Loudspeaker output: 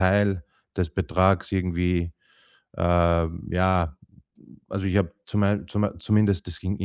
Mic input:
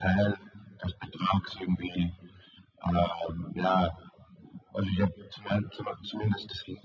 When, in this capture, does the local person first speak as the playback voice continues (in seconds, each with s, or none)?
none